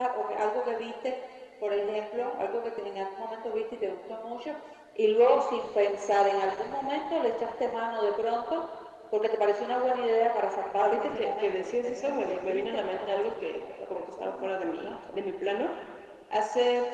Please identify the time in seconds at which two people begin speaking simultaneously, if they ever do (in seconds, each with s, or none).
10.8 s